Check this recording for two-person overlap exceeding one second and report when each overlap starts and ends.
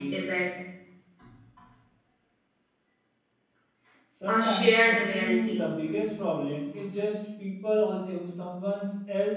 4.3-5.6

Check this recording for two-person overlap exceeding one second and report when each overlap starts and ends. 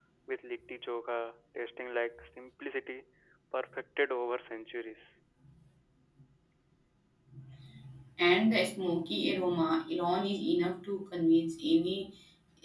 none

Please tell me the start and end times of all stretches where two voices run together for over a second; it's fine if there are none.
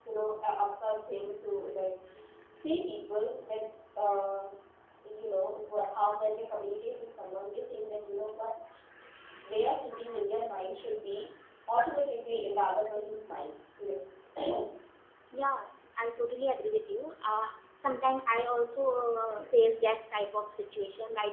none

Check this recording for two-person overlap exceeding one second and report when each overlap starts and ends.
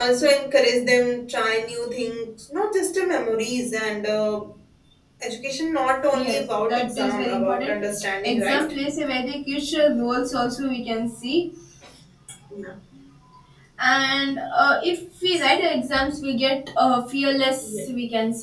6.1-7.7

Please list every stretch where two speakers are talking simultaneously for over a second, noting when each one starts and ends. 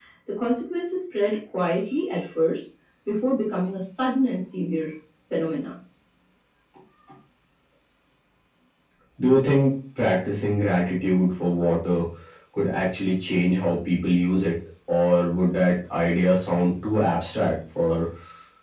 none

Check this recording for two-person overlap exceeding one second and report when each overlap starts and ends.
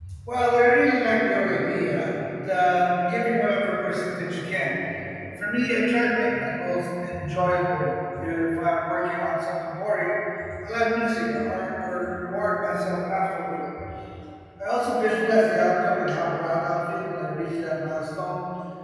none

